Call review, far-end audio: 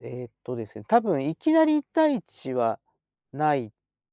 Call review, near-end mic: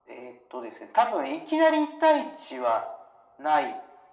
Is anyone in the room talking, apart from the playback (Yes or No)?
No